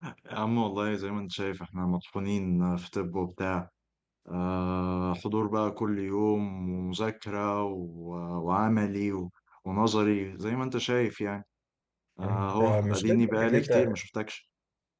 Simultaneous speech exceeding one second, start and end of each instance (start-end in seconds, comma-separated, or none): 12.2-14.0